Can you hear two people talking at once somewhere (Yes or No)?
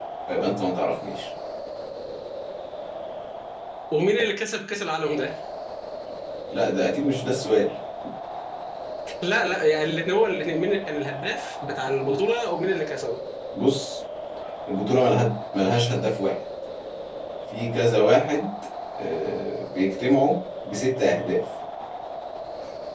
No